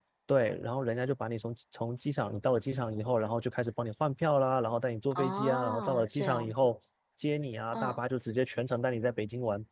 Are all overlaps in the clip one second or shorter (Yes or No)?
No